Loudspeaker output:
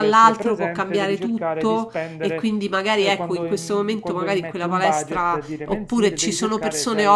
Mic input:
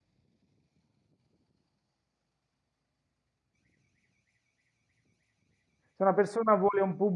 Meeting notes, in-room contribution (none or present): present